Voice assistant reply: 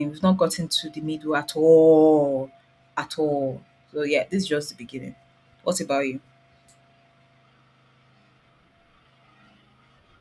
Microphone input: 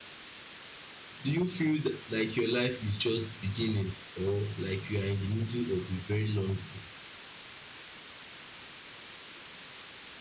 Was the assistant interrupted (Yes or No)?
Yes